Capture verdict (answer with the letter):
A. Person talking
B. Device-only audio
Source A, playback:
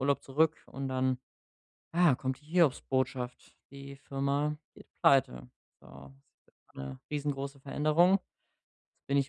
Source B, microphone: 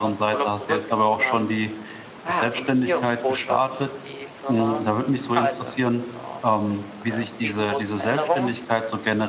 A